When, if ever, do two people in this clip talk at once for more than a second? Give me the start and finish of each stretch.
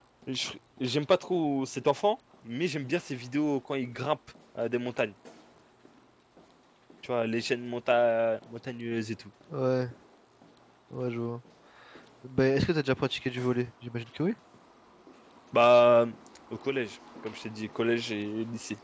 none

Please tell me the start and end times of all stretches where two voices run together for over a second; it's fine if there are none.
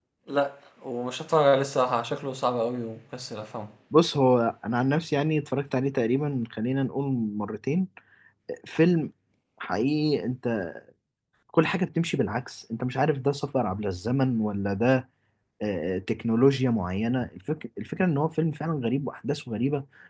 none

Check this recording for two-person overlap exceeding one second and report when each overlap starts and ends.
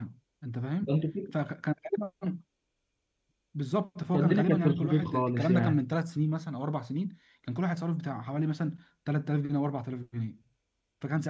4.1-5.8

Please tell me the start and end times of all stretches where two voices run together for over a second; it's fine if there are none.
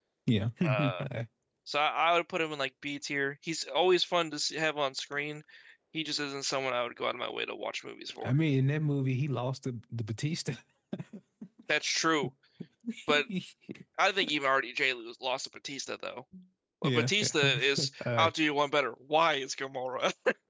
16.8-18.4

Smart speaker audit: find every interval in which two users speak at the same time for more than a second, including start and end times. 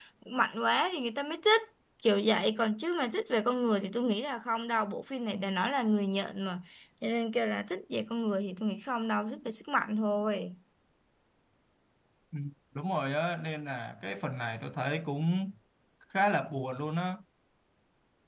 none

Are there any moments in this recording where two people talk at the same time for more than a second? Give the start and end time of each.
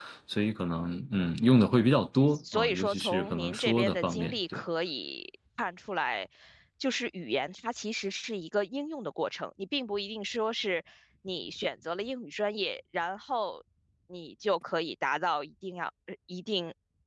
2.5-4.6

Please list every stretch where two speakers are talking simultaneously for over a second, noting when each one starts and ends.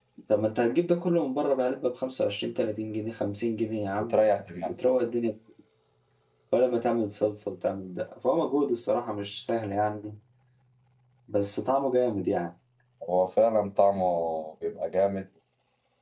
none

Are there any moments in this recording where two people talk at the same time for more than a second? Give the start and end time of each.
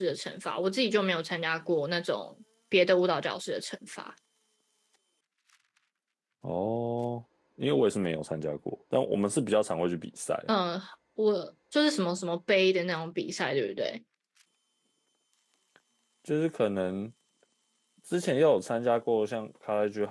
none

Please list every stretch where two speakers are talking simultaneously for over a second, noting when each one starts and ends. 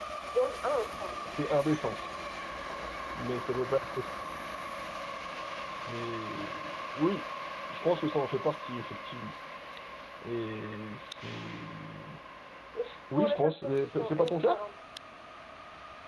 13.1-14.6

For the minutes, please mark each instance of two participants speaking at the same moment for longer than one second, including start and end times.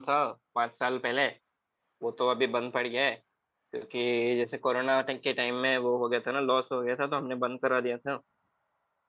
none

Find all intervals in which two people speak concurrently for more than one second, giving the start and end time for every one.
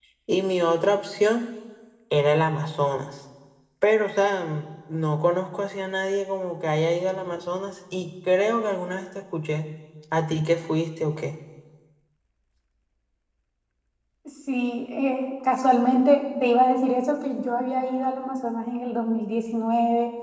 none

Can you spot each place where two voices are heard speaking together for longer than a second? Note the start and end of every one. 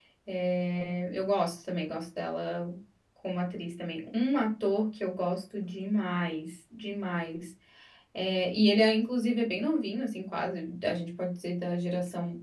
none

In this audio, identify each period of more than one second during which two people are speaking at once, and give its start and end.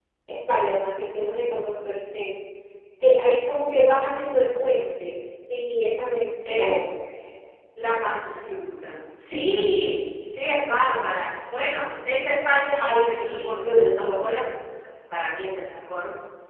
12.7-14.2

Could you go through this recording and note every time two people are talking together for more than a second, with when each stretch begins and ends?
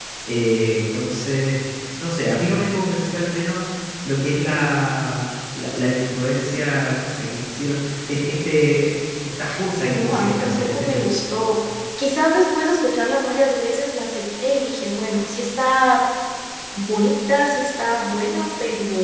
9.7-11.2

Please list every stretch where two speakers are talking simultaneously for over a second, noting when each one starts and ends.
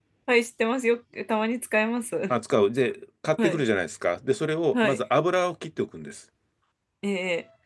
none

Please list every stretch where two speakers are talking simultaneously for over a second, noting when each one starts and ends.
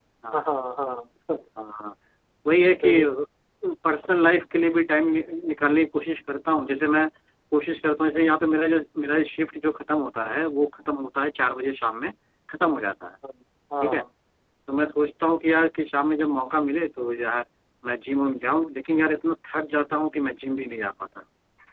none

